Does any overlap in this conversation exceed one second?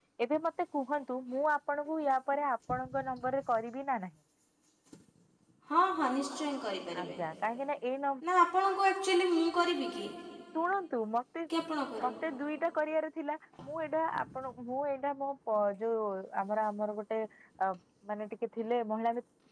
No

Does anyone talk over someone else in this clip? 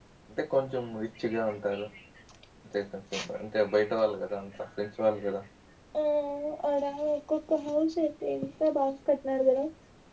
No

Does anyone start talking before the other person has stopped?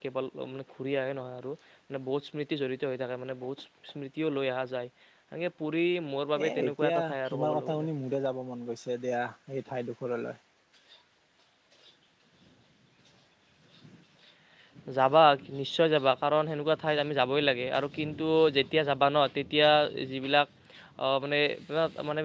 Yes, from 6.7 s

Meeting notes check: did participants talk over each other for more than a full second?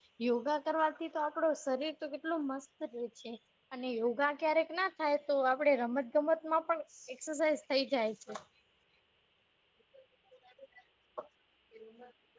No

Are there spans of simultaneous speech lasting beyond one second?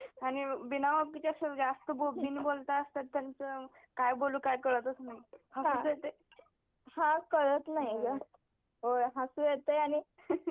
No

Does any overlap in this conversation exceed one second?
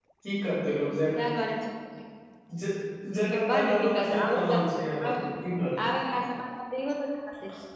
Yes, from 3.3 s

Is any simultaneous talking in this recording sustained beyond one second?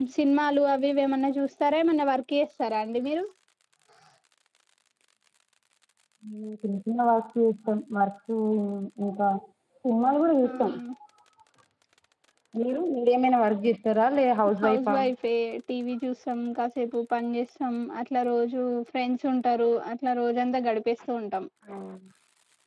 No

